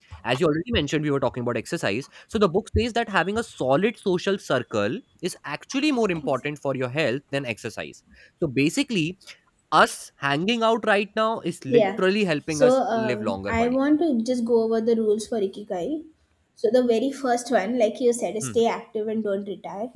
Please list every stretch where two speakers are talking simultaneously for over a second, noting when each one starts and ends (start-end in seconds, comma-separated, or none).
12.5-13.8